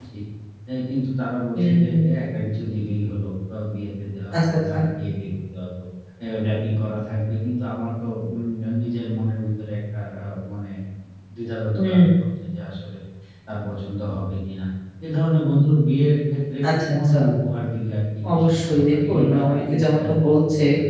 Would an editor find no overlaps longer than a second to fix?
No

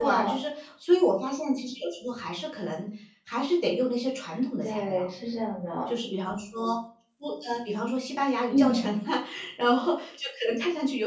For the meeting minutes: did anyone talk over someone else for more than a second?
No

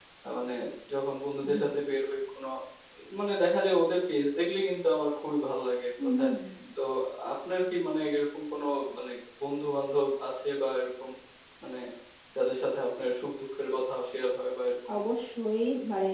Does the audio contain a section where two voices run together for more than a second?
No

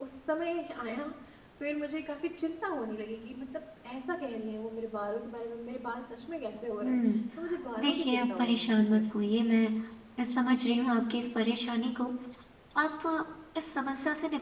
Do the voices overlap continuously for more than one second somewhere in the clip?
Yes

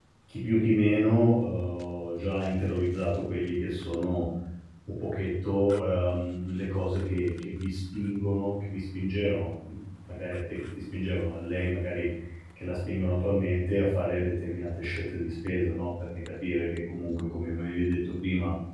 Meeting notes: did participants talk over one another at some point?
No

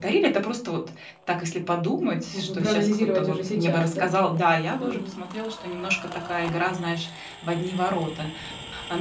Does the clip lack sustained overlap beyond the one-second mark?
No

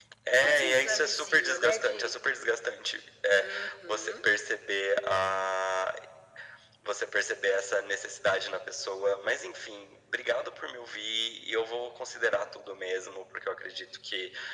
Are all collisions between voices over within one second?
No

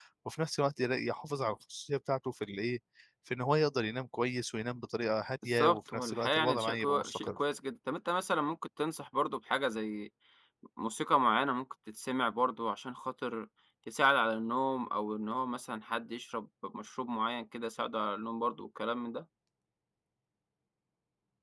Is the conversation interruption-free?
No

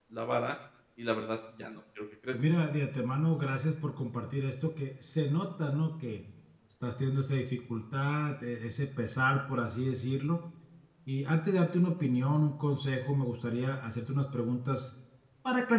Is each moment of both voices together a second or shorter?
Yes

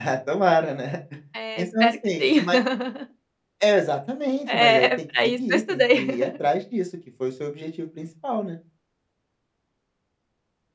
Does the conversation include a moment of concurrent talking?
Yes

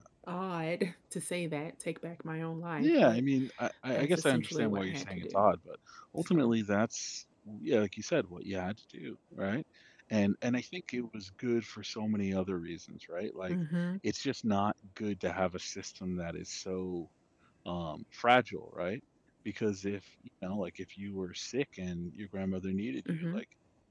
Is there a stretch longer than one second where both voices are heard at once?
Yes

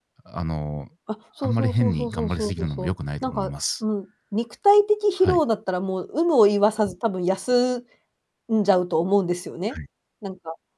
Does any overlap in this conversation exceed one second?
Yes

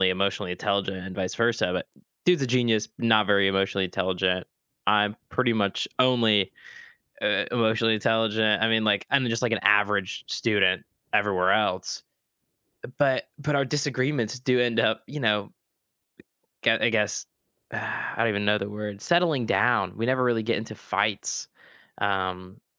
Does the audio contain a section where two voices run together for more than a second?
No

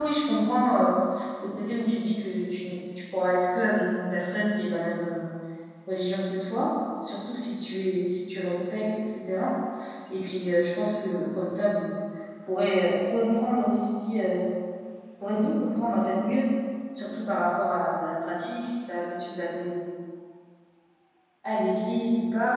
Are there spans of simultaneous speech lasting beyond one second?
No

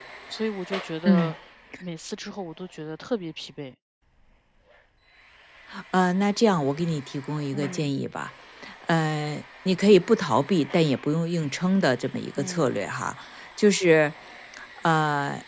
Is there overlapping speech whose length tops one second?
No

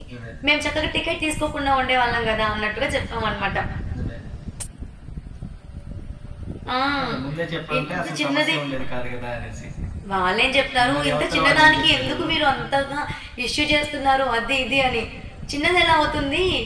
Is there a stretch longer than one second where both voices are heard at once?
Yes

